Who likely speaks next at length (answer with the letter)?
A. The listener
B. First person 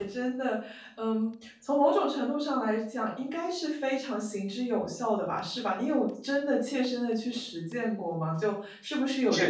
B